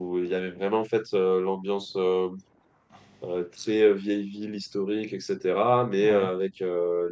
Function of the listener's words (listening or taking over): listening